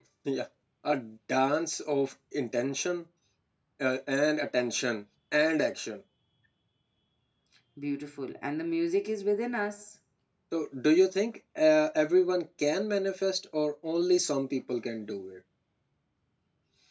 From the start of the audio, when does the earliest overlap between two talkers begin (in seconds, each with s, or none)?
none